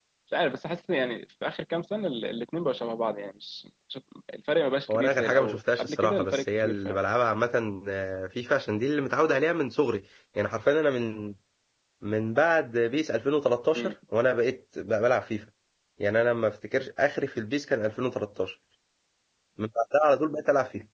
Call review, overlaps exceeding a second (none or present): present